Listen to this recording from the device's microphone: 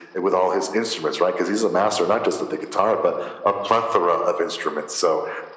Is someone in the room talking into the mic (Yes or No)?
No